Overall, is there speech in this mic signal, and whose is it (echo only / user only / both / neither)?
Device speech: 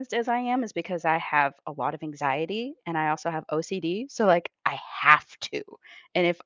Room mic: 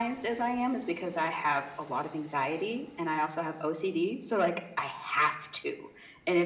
echo only